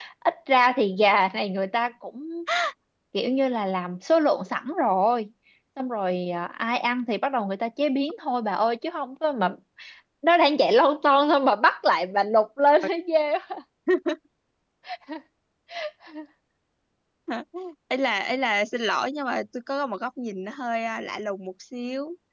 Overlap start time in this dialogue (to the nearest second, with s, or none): none